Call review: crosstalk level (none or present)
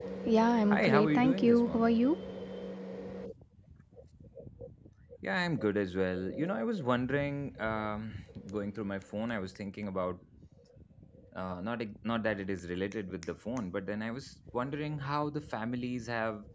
present